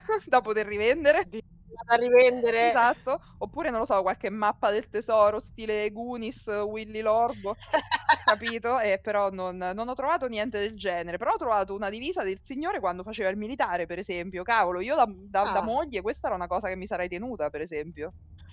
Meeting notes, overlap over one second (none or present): none